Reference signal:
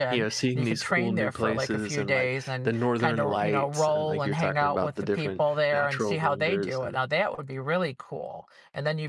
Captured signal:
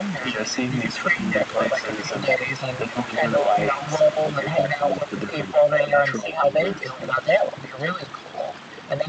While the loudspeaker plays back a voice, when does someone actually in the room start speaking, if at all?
none

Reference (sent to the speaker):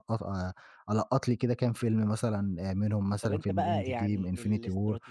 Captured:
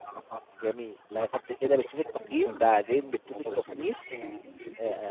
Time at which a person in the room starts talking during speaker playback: 0.6 s

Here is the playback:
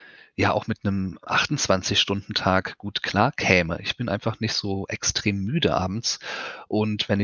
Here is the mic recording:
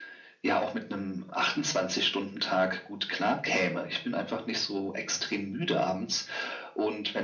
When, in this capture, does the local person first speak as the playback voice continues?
none

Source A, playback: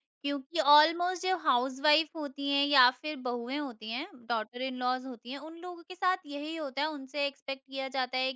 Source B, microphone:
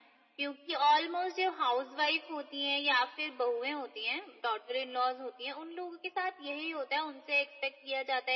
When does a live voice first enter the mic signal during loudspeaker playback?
none

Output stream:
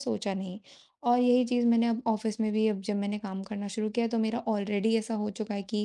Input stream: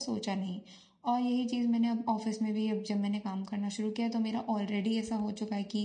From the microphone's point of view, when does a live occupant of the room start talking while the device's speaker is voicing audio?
none

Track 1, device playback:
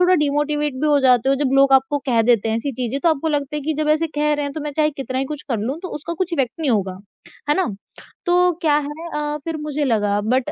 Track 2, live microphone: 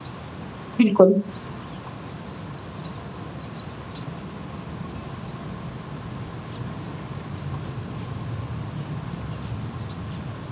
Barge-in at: 0.8 s

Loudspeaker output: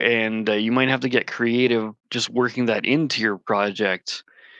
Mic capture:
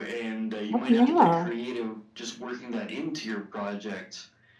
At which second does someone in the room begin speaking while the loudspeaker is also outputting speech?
0.7 s

